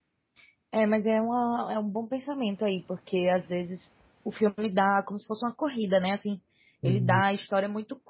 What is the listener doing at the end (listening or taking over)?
listening